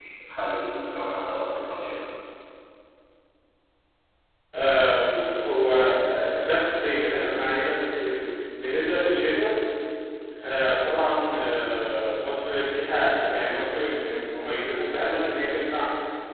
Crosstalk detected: No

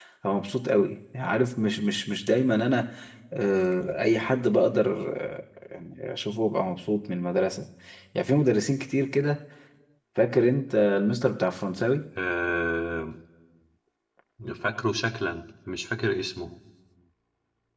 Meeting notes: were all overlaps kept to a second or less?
Yes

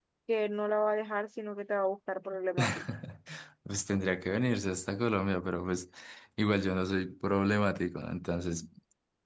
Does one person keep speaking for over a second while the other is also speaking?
No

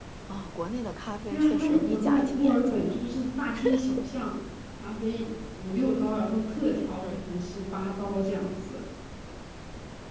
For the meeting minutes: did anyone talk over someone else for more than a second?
Yes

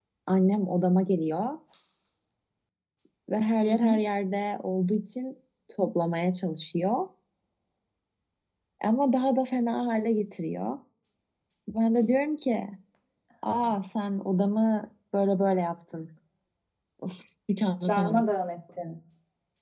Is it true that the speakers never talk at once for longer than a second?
Yes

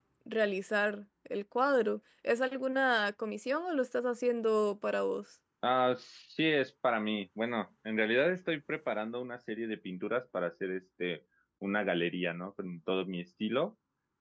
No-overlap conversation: Yes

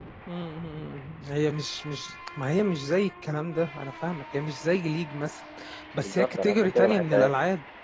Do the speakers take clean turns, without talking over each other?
No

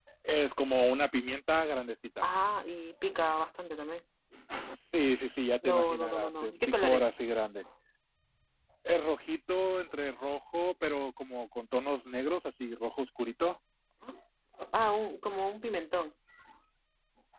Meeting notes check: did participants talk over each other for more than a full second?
Yes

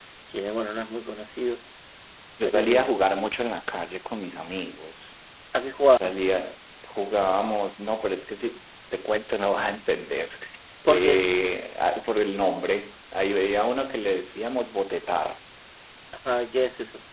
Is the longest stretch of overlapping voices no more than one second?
Yes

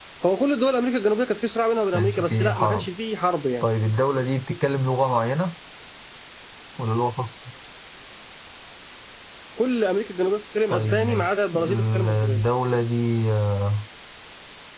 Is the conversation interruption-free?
No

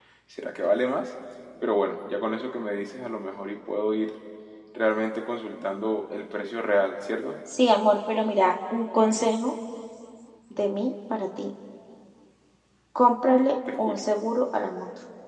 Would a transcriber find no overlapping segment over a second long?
Yes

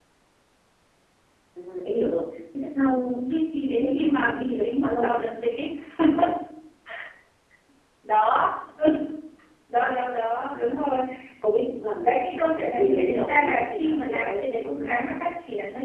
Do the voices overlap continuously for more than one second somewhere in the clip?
Yes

